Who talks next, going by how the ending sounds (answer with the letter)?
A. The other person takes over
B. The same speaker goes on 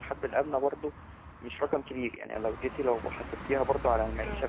A